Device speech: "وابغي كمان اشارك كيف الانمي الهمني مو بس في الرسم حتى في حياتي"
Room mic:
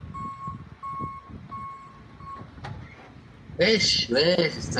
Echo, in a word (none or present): none